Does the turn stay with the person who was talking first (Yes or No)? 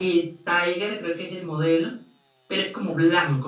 Yes